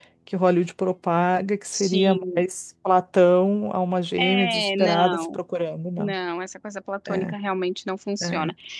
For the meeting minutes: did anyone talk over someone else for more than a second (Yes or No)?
Yes